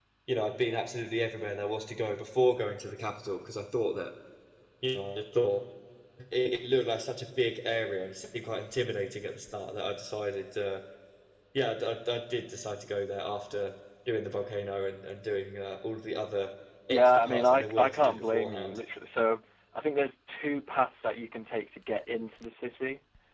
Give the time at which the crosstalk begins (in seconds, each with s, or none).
16.9 s